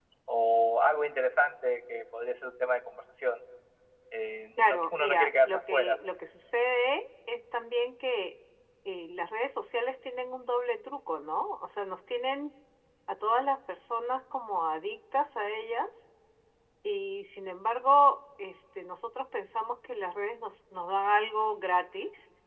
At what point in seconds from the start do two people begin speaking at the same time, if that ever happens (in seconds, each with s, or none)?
4.6 s